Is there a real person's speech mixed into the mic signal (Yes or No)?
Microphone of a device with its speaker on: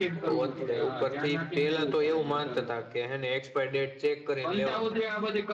Yes